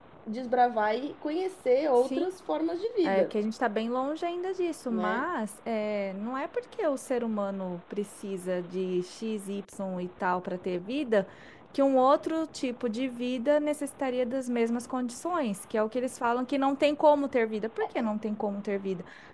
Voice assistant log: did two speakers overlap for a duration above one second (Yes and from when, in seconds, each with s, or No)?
No